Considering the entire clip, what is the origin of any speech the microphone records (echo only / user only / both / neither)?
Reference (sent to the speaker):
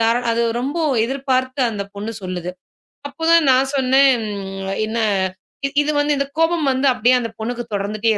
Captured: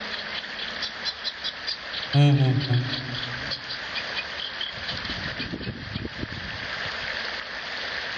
user only